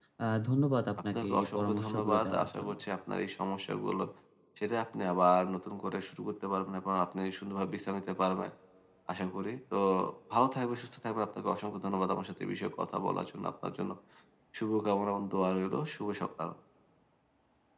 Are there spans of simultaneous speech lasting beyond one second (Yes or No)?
Yes